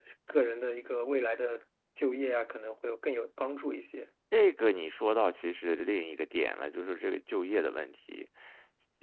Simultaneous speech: No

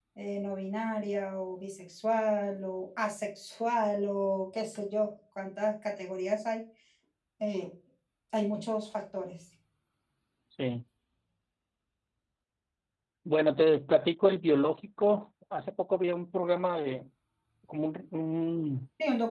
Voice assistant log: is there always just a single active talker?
Yes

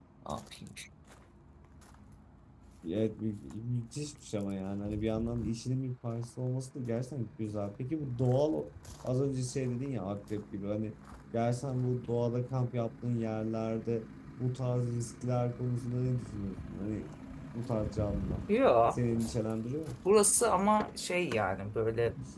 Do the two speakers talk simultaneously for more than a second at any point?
No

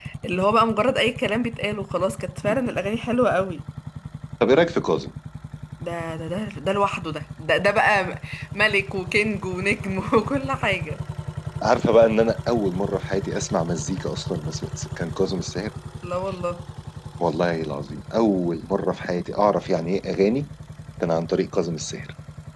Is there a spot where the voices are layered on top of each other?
No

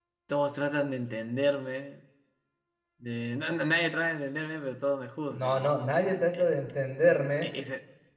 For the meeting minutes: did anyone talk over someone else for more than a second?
No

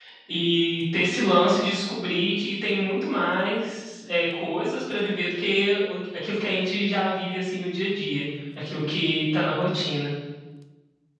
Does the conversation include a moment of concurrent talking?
No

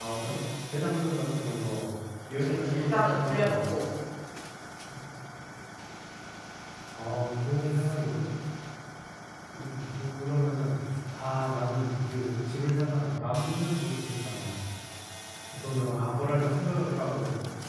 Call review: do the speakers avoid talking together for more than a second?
No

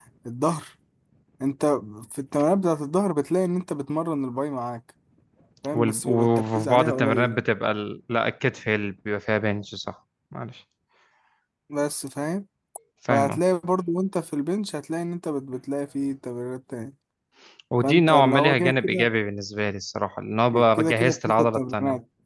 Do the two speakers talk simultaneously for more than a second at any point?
Yes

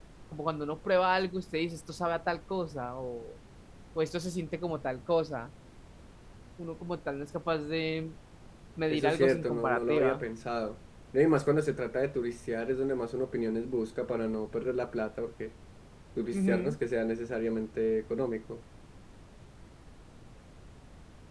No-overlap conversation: No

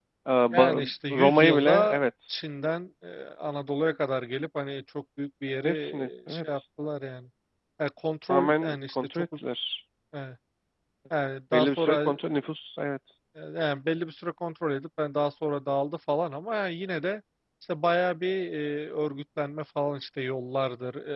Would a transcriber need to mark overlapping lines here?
Yes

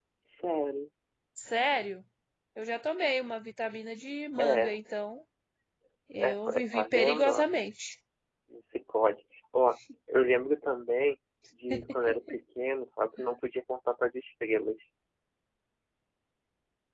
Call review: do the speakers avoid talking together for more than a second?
No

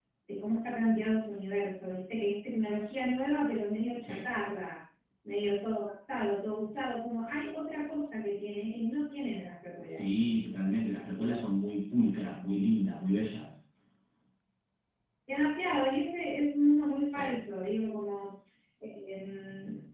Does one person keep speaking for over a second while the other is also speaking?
No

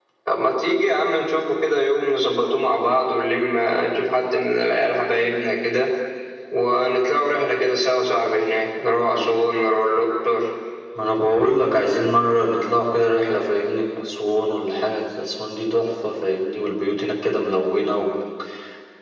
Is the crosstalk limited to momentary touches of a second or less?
Yes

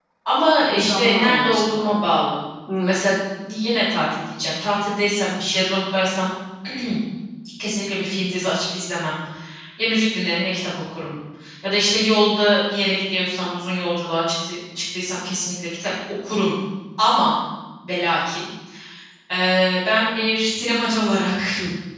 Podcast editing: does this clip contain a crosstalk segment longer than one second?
Yes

